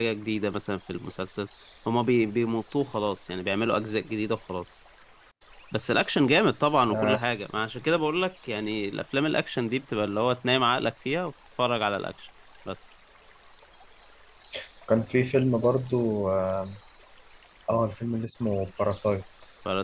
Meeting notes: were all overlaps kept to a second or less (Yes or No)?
Yes